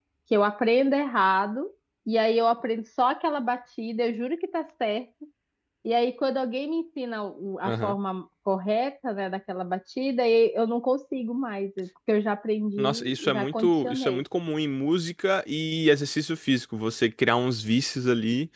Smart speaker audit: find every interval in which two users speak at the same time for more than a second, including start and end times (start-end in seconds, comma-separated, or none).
12.8-14.2